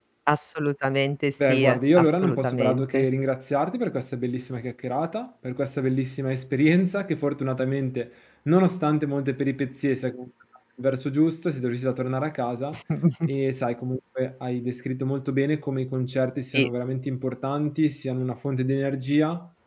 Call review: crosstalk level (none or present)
present